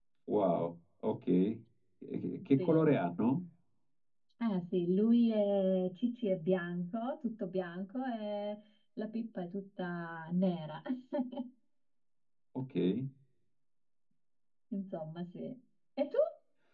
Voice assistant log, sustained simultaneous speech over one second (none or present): none